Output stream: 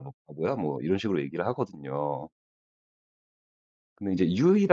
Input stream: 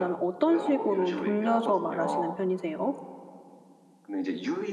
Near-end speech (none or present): present